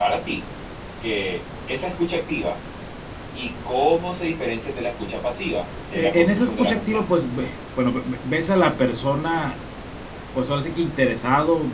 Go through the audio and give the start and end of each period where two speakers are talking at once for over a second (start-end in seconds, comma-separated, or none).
5.9-7.2